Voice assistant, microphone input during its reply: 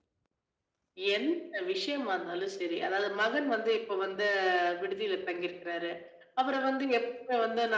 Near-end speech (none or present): none